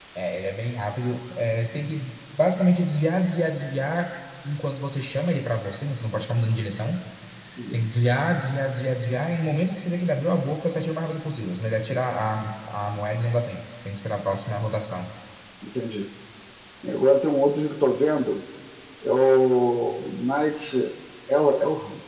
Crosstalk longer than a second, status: none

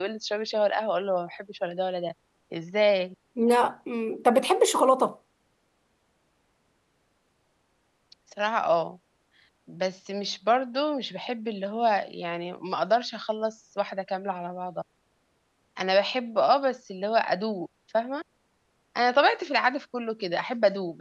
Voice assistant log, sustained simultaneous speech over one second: none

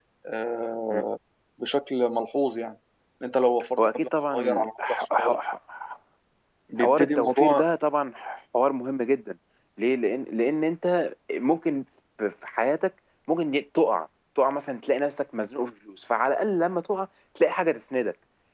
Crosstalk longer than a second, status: present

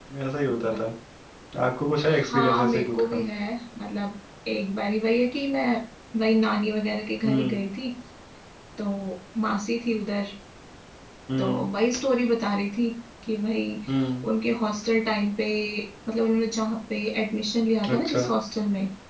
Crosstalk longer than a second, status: present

